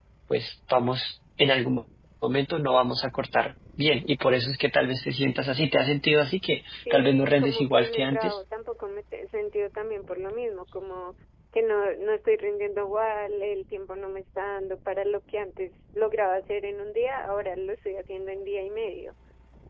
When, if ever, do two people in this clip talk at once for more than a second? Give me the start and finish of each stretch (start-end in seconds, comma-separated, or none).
6.9-8.4